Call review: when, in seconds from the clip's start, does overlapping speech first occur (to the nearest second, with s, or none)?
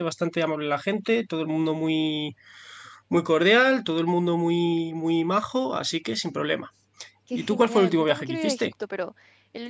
7 s